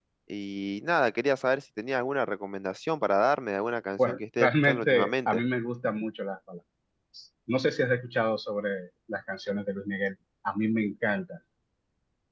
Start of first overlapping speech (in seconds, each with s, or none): 4.0 s